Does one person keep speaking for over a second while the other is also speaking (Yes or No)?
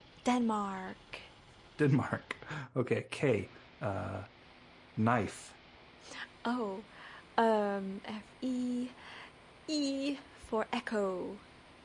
No